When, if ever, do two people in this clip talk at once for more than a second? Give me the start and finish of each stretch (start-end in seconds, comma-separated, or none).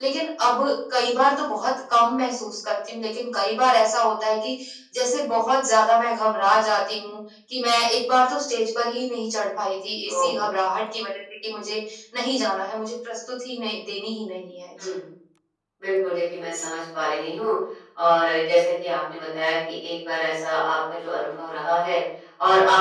none